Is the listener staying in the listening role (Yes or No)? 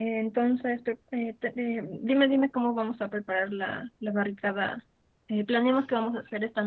Yes